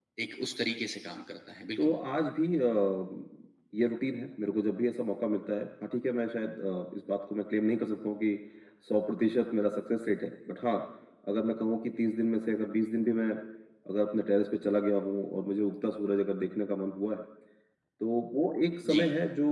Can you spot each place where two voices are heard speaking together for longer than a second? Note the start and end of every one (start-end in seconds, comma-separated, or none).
none